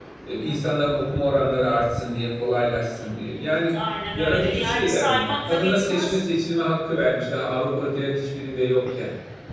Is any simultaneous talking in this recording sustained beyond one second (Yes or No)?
Yes